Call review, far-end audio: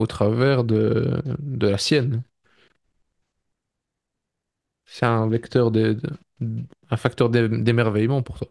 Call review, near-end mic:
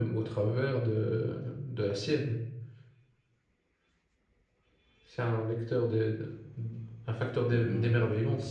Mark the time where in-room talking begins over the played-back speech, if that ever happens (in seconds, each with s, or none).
7.5 s